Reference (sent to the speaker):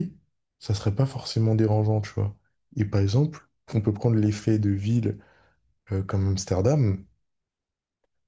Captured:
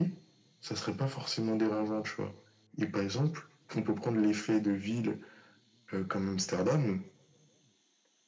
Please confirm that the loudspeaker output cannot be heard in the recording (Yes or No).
No